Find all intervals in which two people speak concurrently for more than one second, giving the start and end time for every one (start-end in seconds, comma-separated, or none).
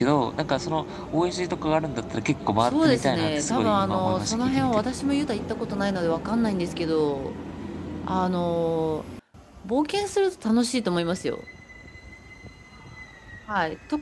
2.6-4.8